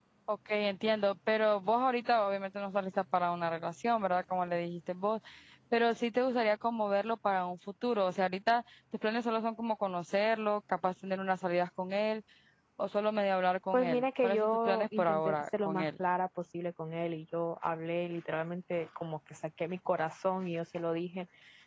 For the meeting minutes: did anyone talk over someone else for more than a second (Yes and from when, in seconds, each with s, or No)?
Yes, from 13.7 s